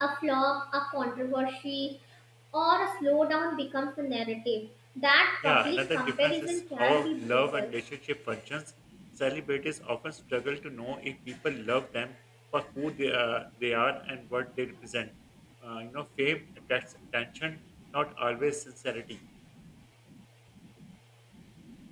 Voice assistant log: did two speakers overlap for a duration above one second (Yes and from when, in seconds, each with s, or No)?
Yes, from 5.4 s